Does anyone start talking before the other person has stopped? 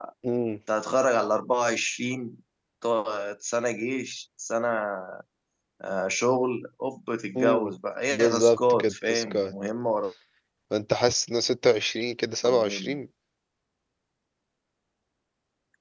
Yes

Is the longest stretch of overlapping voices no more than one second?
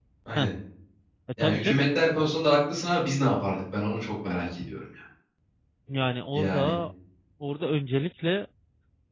Yes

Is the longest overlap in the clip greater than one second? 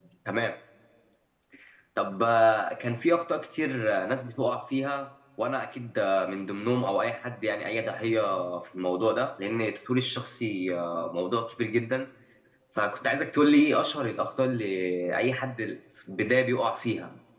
No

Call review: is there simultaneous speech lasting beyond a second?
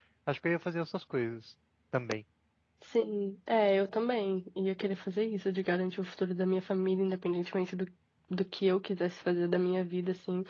No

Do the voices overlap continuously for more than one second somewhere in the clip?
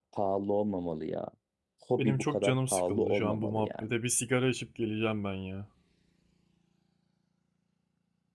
Yes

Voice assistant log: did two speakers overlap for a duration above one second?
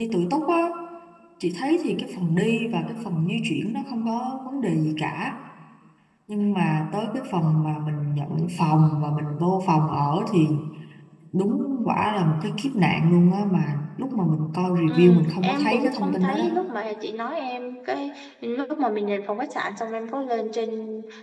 Yes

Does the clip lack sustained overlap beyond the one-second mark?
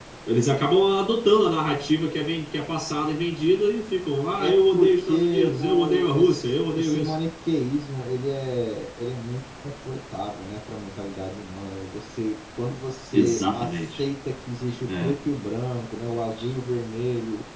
No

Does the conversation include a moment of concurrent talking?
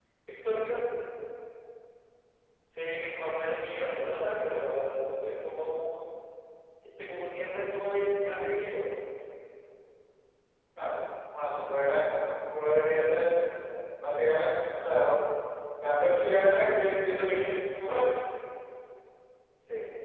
No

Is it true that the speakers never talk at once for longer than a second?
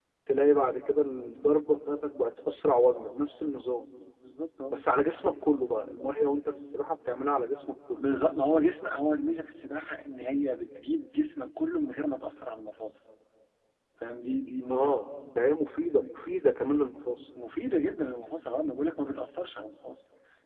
Yes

